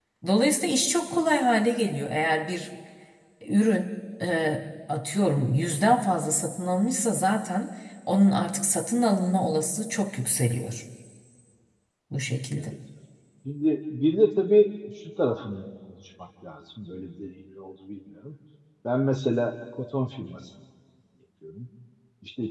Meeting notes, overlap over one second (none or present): none